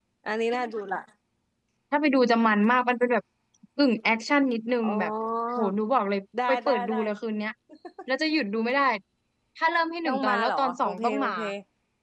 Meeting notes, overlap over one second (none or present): present